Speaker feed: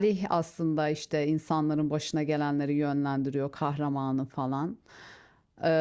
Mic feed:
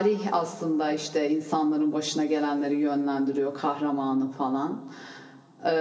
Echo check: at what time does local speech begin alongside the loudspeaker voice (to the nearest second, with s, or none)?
none